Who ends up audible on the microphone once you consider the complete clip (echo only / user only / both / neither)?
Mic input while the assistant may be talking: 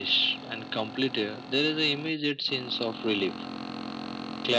echo only